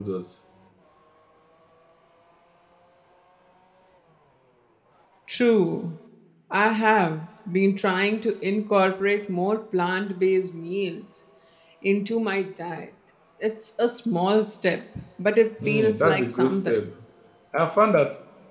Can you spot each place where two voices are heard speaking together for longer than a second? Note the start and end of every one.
15.6-16.8

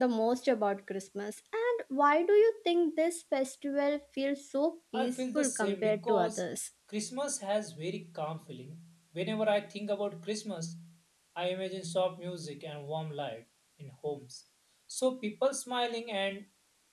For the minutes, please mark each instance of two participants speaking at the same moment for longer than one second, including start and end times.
4.9-6.4

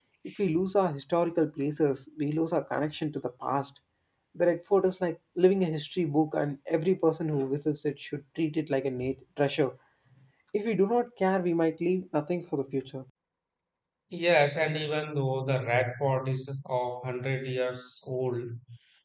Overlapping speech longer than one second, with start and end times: none

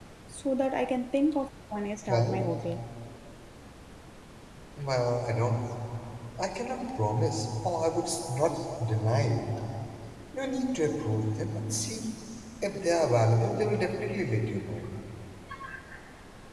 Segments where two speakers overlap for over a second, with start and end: none

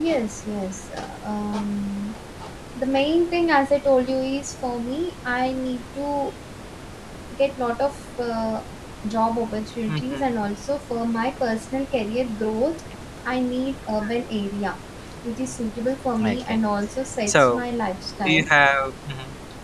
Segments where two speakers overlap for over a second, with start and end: none

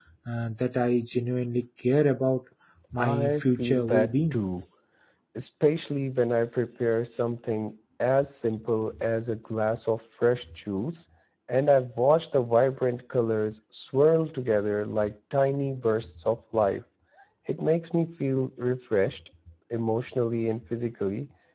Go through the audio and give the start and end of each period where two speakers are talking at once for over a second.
3.0-4.4

